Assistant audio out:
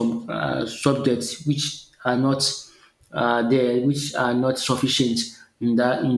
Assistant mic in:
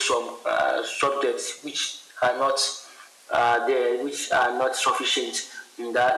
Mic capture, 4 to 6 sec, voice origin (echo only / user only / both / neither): echo only